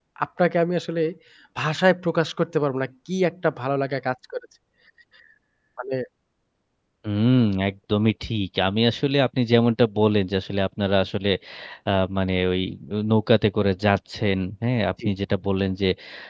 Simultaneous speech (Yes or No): No